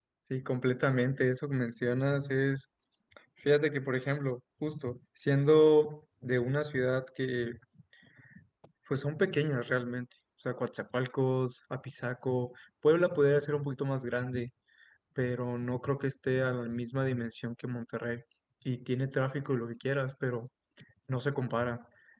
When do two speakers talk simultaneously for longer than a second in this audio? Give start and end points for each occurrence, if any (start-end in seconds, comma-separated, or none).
none